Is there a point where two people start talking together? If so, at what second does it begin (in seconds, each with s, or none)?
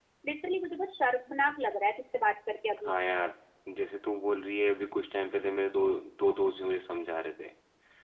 none